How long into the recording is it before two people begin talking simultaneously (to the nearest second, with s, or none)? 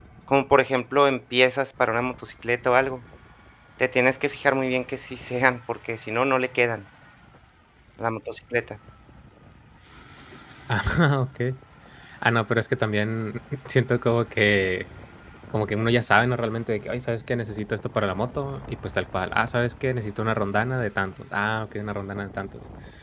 none